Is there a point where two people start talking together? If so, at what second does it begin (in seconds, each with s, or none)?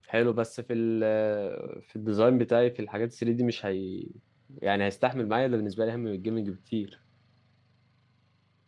none